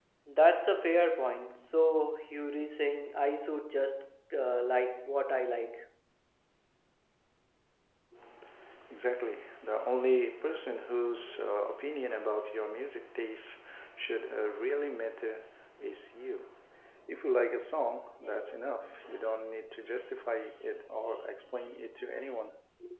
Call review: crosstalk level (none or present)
none